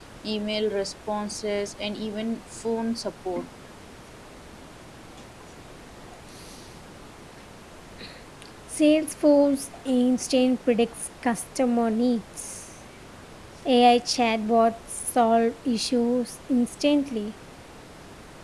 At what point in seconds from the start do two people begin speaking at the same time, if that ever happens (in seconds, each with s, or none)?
none